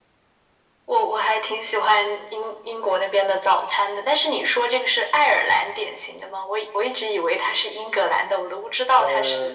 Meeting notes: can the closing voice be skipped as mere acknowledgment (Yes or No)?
No